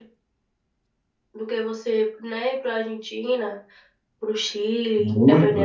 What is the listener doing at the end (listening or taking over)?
taking over